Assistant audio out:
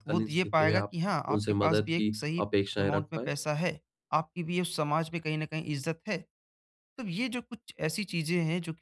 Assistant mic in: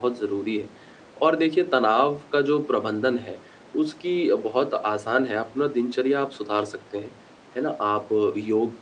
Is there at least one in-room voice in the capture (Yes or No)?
Yes